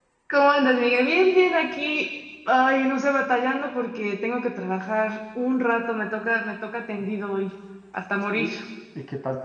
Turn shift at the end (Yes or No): Yes